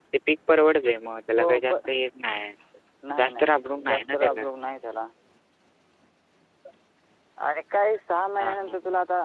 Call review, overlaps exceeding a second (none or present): present